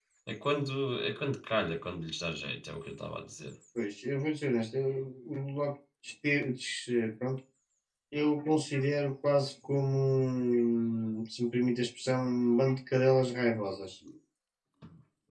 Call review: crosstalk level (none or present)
none